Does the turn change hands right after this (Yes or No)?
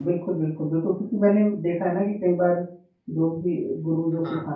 No